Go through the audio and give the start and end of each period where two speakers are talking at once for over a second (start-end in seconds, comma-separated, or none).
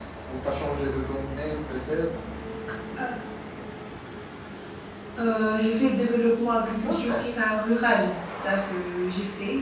none